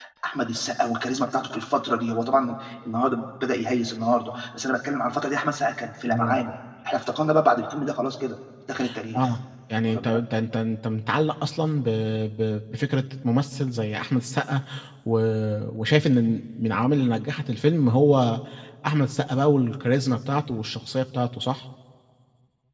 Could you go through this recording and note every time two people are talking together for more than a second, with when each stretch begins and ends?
none

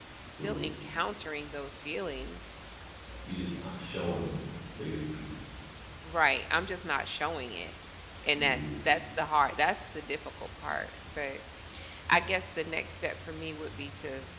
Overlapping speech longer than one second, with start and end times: none

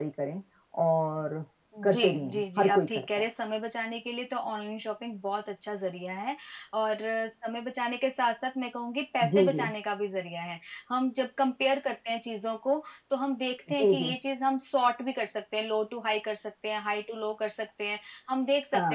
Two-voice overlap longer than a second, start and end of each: 1.9-3.3

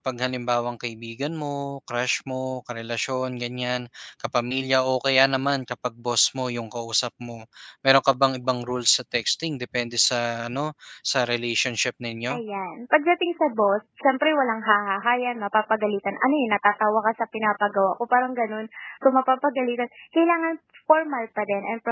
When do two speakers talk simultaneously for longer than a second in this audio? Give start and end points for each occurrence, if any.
none

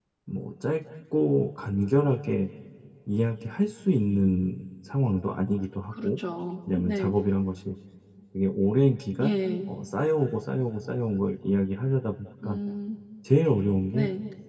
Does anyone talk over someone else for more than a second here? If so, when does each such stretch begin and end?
none

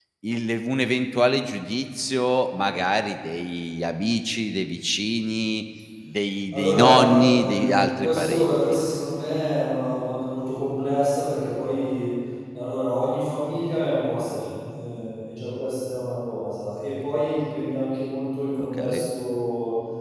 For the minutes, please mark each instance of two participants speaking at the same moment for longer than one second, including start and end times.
6.5-8.8

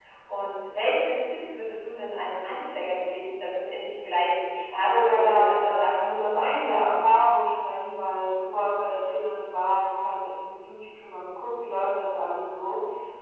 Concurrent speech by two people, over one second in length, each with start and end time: 4.8-6.1

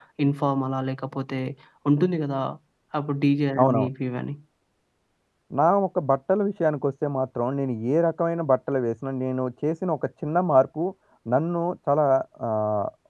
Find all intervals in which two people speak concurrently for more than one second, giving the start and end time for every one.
none

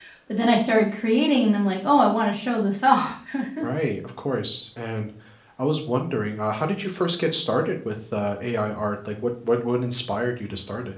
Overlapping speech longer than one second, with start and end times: none

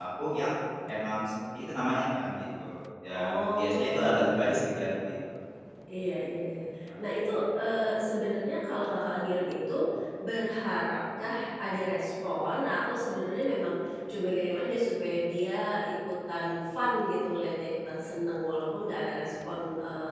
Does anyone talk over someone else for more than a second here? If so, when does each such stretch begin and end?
3.1-4.4

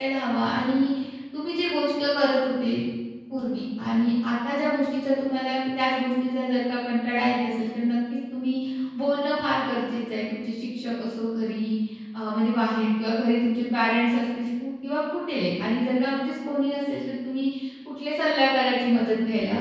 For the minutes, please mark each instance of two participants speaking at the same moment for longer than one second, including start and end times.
none

